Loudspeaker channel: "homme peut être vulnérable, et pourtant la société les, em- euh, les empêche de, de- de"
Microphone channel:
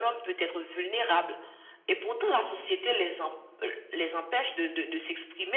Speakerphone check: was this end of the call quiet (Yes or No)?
Yes